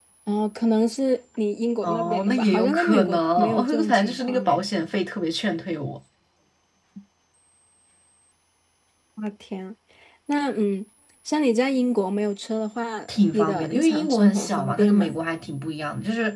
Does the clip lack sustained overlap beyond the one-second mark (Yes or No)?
No